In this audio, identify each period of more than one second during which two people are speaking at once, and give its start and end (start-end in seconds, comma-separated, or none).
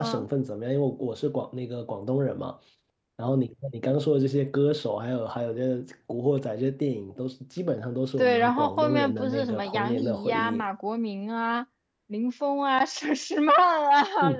8.2-10.6